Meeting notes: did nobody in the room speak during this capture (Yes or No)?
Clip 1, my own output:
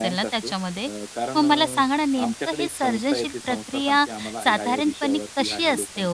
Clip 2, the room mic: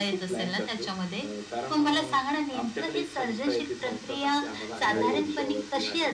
No